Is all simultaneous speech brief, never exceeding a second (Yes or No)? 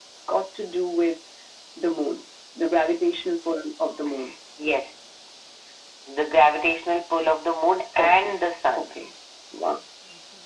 Yes